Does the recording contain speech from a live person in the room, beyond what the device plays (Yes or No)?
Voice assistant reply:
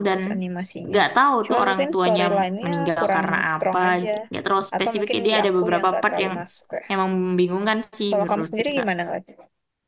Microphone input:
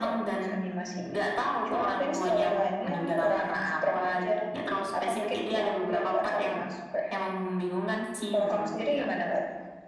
No